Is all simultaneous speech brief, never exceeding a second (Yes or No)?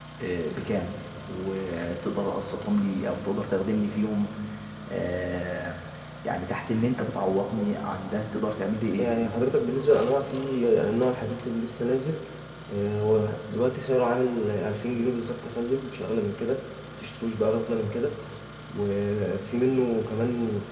Yes